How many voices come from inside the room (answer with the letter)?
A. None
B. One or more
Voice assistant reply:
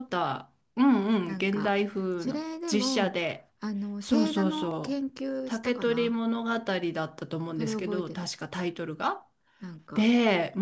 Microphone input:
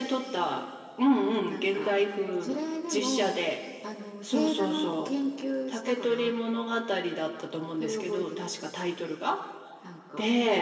A